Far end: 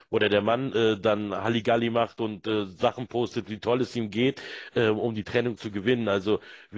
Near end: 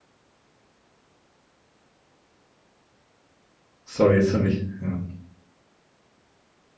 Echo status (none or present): none